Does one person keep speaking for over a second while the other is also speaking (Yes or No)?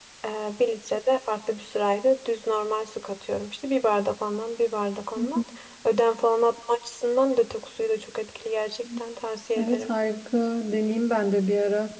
No